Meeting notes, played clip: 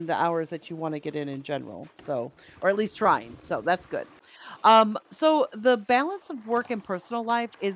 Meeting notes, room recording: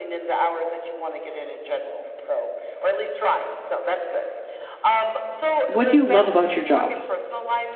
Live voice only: What do you love about your job?"

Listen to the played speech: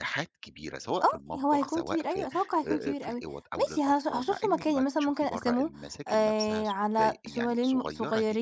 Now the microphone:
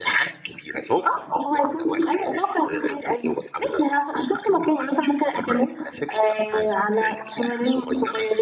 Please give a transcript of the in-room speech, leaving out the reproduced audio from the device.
none

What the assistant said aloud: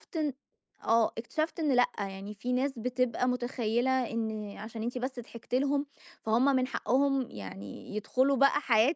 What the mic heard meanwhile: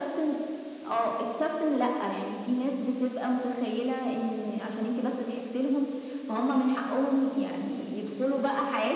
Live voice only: none

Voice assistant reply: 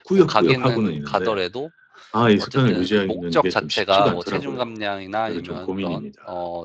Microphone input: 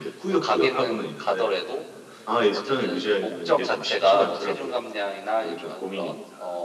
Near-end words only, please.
none

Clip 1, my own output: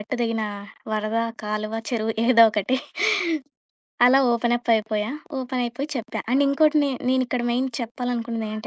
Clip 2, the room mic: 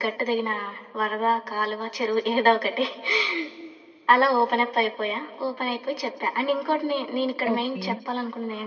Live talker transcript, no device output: ఓకే.

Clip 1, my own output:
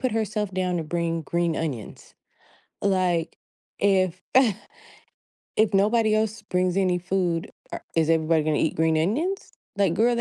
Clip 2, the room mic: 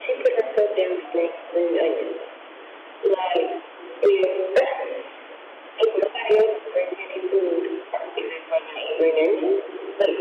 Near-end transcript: none

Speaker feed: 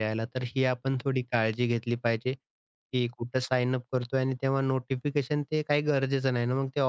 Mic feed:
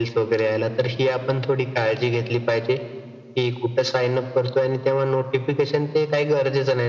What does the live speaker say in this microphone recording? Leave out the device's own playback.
none

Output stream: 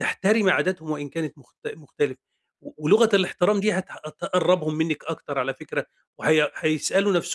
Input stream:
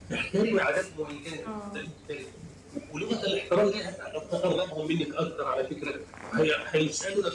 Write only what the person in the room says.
آه،

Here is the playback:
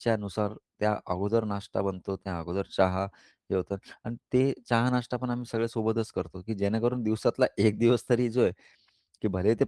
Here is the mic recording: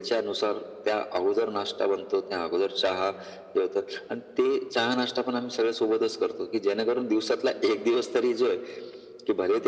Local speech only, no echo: none

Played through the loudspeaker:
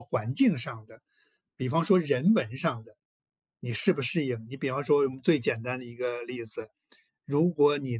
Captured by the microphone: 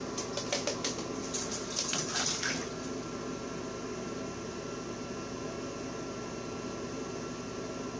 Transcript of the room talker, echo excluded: none

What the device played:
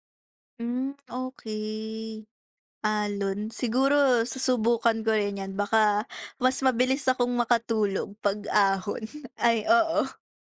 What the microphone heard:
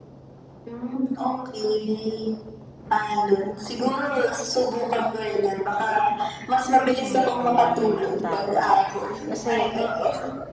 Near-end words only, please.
Mm, tama. Kasi

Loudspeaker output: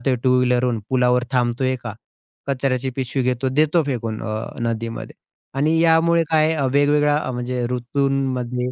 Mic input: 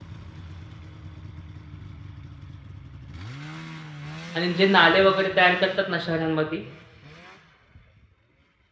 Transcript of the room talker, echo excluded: आणि जे नाले वगैरे तयार करतात ना शहरांमध्ये,

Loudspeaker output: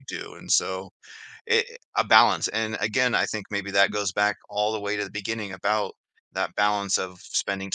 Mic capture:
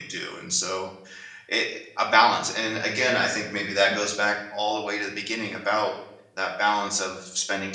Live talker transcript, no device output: none

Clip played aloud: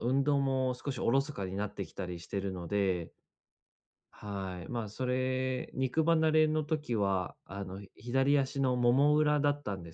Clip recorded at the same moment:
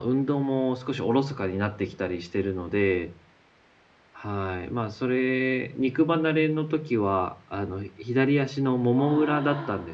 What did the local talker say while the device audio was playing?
あ

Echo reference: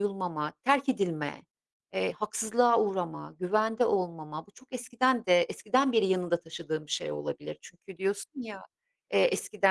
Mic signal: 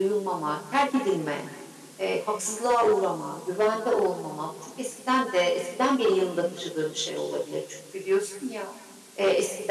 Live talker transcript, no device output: none

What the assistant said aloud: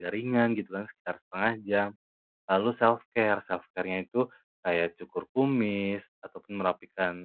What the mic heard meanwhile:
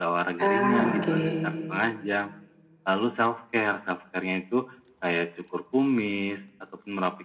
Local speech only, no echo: Ah, oke.

